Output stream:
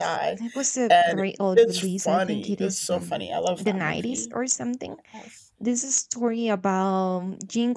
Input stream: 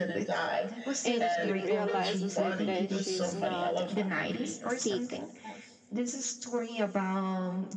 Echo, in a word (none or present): present